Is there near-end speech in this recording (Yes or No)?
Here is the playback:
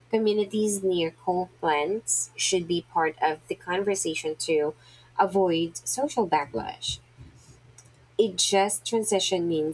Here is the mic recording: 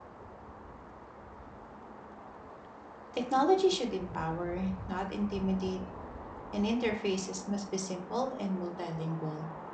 Yes